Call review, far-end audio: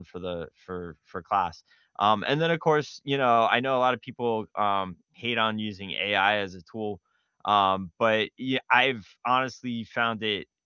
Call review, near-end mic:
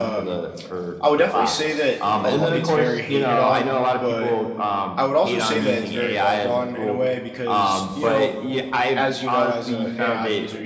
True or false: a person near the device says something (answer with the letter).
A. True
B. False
A